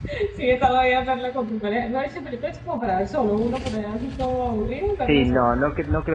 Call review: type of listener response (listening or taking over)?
taking over